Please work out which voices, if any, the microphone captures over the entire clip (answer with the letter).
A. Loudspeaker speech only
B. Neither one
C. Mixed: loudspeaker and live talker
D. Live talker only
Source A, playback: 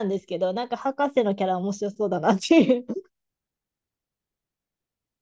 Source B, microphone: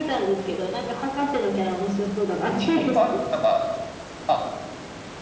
C